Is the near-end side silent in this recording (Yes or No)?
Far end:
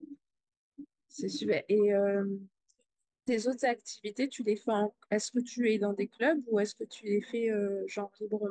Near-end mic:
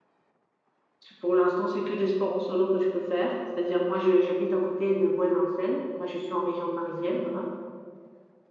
No